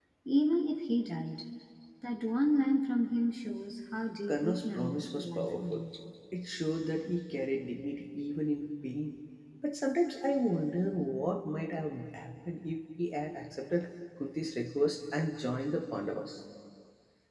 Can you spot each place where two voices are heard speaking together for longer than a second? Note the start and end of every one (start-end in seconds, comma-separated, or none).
4.3-5.8